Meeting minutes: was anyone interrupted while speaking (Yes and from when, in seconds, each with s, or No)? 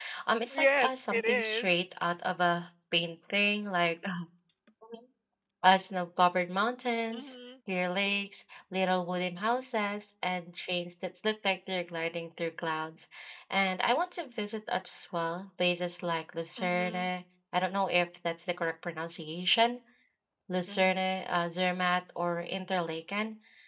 Yes, from 0.5 s